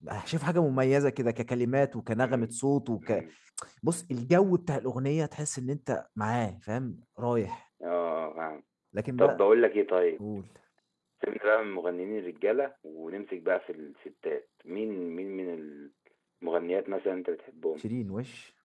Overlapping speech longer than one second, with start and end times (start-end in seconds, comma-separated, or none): none